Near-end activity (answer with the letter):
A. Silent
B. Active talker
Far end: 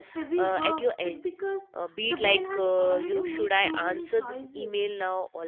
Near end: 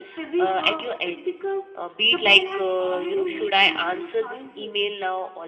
A